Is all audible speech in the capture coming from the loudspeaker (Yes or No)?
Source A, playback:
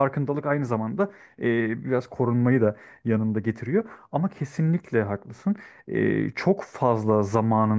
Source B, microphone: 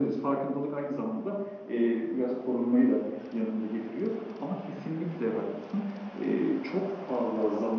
Yes